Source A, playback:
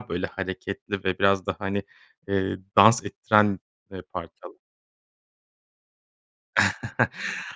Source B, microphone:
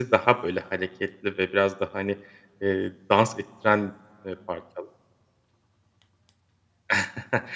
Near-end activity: none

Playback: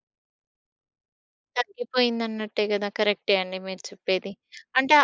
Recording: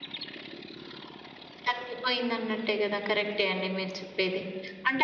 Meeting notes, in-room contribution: none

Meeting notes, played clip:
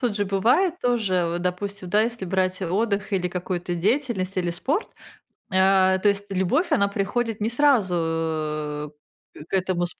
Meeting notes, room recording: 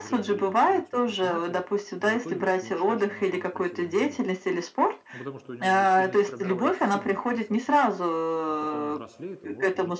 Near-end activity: present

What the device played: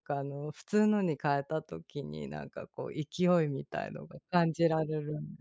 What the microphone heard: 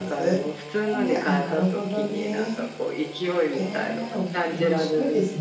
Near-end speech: present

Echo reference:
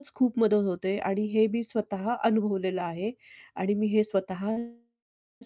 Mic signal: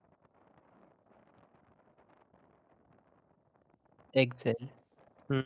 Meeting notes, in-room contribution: present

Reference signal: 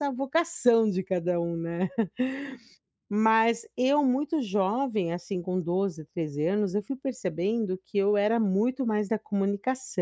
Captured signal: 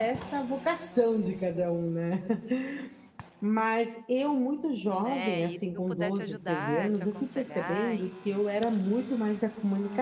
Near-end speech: present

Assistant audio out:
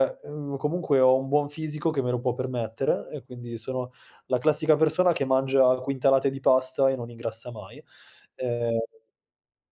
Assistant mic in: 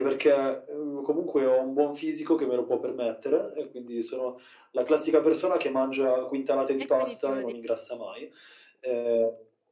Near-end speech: present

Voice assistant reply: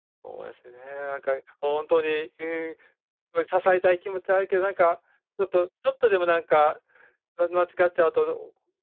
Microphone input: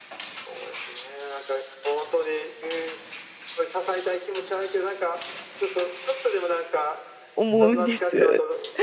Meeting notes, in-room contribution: present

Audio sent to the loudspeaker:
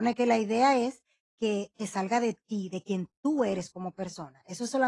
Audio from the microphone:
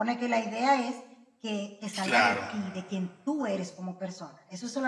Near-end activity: present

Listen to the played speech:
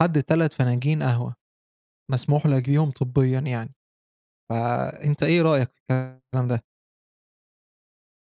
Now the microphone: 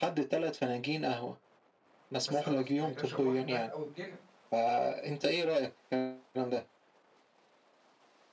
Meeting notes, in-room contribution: present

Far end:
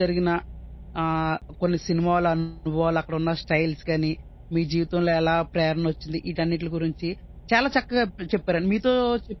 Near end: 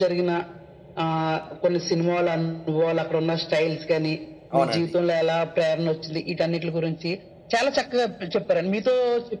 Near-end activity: present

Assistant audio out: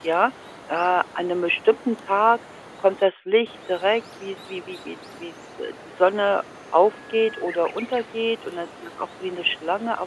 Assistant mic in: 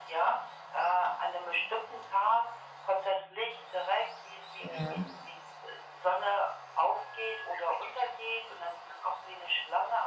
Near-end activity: present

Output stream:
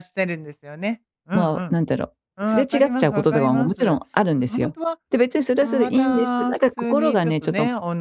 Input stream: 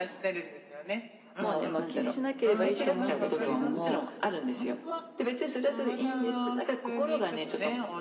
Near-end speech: present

